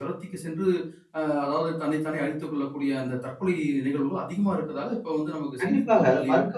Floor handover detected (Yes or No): Yes